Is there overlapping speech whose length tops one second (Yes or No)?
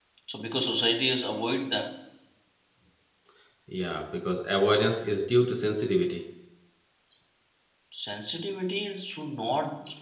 No